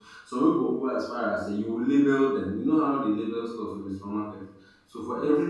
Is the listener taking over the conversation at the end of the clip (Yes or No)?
No